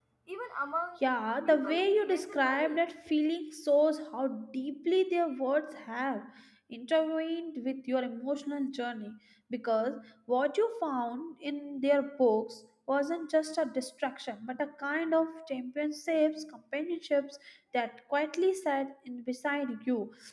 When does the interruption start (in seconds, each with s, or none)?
1.4 s